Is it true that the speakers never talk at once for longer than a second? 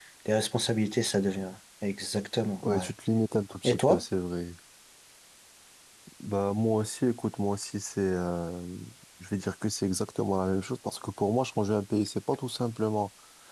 Yes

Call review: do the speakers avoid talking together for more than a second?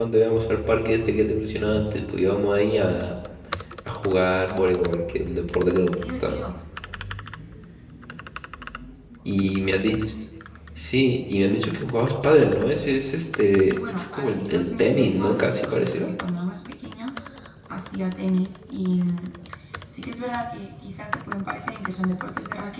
No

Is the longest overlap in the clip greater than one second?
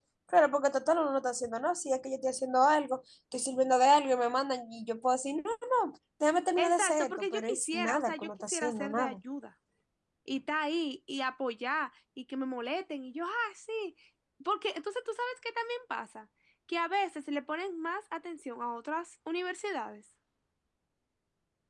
Yes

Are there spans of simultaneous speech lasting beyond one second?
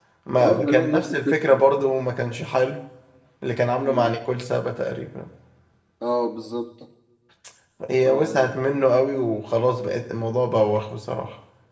Yes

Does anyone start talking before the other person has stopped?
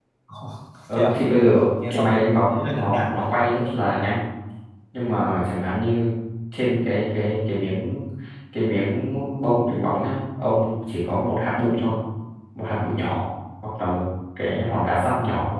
Yes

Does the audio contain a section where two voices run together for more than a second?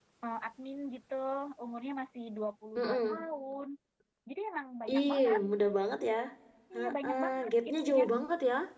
Yes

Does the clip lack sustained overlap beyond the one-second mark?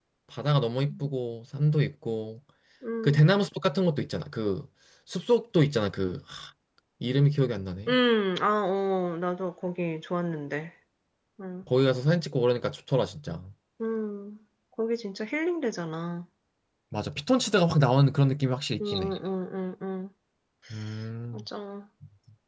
Yes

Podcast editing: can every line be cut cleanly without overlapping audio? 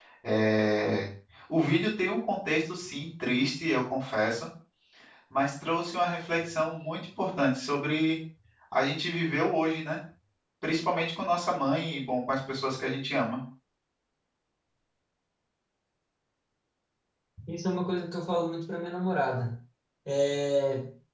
Yes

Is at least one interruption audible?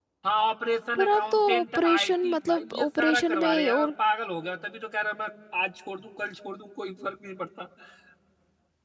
Yes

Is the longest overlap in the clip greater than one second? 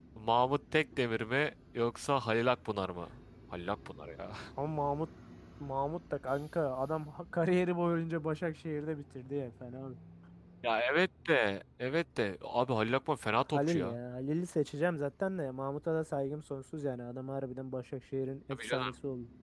No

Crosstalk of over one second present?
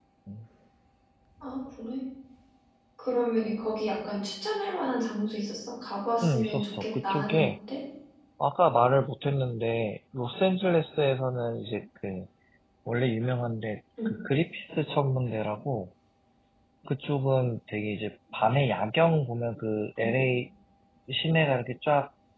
Yes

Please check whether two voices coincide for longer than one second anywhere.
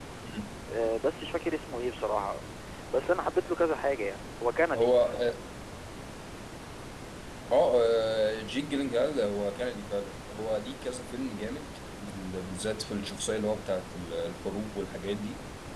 No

